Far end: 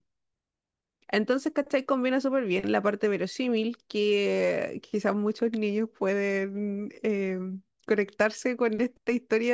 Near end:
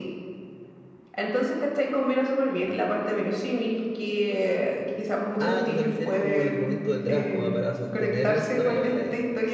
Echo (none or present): present